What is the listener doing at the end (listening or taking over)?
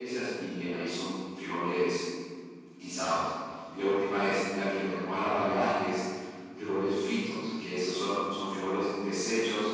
listening